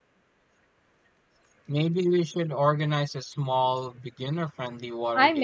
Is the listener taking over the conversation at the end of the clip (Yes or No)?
Yes